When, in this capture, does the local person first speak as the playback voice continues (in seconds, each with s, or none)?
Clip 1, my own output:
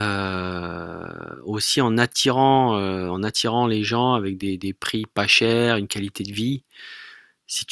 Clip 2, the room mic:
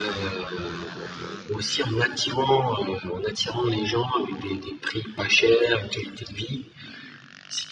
none